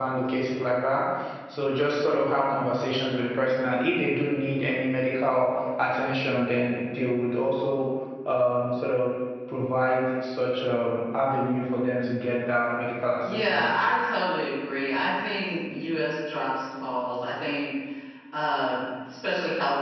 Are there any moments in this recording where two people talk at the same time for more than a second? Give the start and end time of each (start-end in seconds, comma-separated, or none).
none